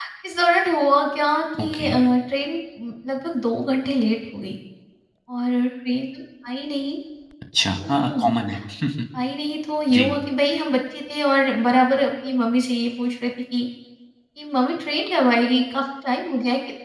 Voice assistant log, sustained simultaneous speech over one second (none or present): none